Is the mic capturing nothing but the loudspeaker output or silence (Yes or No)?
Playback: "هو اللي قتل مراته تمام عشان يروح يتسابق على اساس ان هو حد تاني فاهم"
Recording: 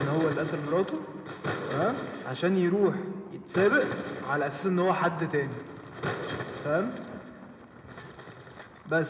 Yes